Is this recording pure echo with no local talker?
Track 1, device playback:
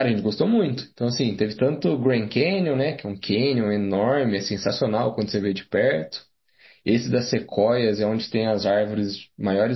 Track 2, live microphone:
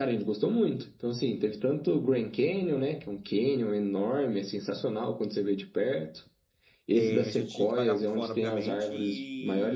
No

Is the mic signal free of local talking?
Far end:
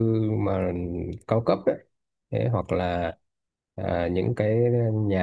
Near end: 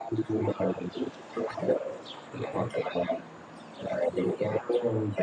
Yes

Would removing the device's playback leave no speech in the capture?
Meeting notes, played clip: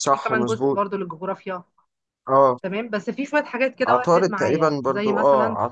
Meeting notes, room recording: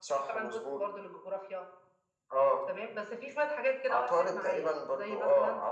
Yes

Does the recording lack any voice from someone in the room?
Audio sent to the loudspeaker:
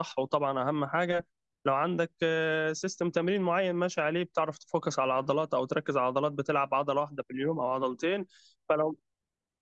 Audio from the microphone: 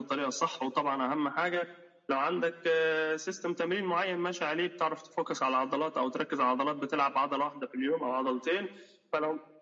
Yes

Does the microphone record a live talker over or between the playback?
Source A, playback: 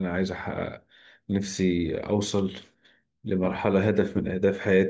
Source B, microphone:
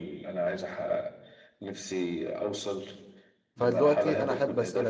Yes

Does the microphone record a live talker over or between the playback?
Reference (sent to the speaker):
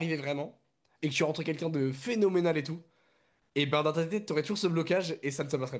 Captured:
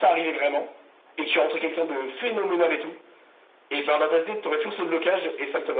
No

